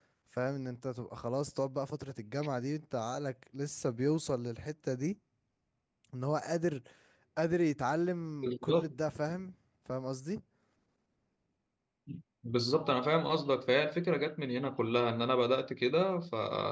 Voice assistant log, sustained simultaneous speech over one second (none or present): none